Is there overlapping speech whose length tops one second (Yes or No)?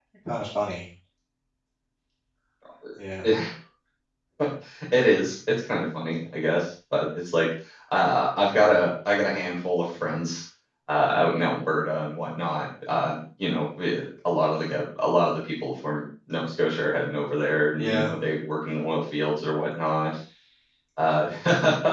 No